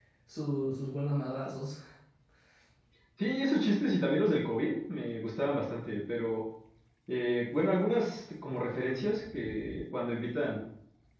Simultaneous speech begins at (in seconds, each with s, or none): none